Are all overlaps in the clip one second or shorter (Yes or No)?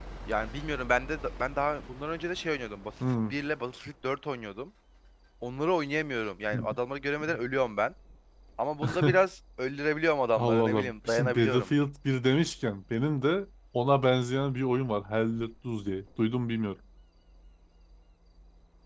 No